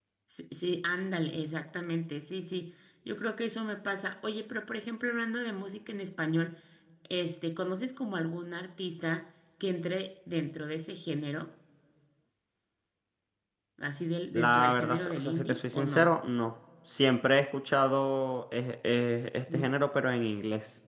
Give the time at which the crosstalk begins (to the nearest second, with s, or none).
14 s